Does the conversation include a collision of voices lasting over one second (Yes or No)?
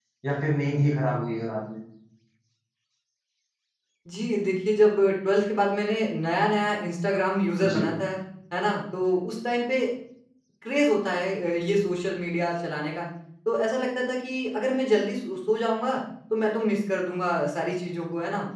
No